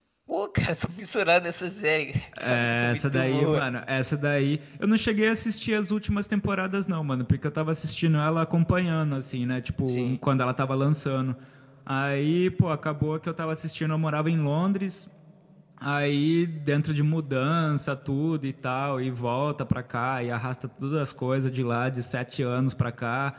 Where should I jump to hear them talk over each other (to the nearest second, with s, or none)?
2 s